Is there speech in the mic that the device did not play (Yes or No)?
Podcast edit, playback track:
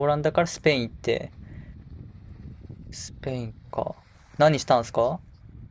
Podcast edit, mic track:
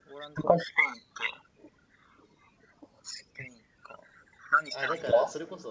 Yes